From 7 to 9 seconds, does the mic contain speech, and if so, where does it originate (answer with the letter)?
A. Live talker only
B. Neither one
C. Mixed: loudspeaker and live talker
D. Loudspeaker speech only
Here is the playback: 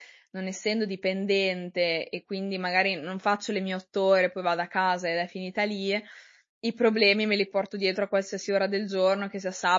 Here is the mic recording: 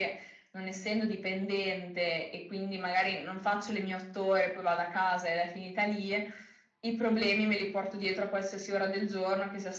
D